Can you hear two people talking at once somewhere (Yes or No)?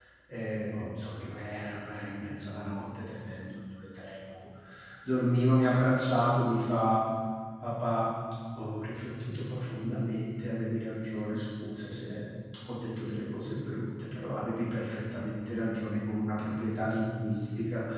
No